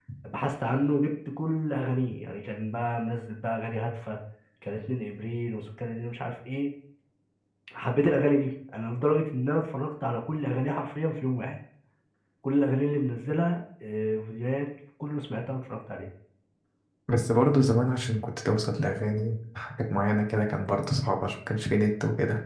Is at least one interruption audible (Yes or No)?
No